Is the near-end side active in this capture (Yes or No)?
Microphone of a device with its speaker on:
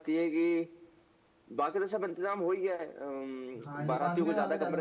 Yes